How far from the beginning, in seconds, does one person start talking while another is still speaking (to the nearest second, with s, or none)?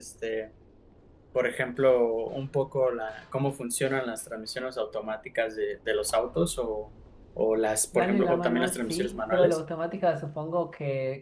8 s